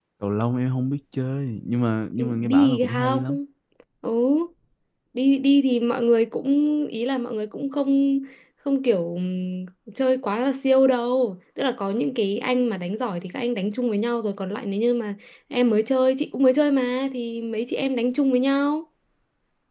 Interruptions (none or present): present